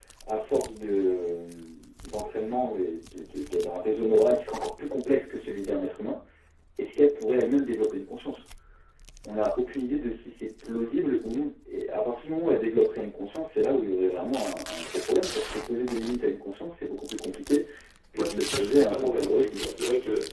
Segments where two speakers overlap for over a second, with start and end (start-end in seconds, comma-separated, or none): 18.1-19.7